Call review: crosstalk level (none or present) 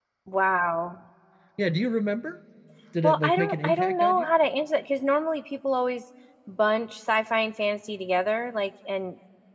present